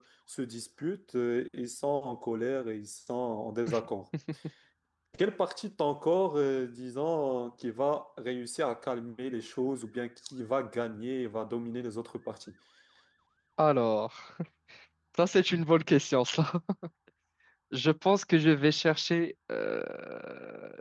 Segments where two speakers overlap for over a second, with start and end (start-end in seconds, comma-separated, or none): none